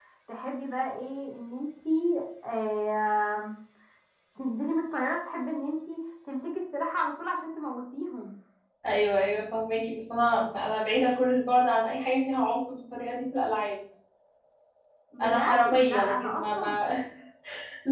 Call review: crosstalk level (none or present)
present